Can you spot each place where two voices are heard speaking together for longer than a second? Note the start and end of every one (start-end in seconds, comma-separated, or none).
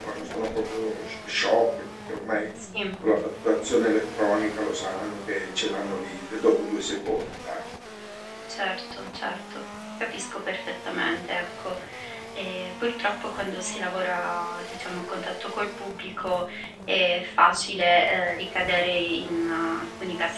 none